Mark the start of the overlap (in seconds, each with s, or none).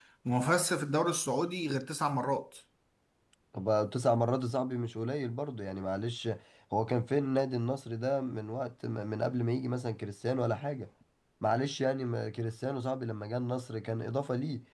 none